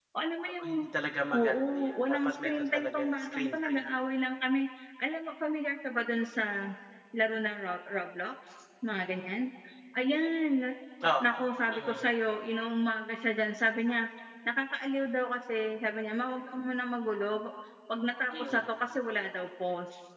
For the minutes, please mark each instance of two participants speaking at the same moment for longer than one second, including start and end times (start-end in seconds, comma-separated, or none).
1.4-3.9